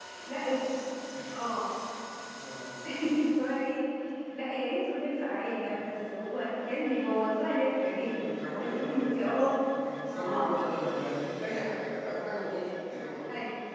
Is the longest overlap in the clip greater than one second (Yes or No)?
Yes